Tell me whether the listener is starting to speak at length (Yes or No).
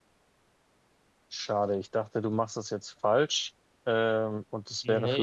No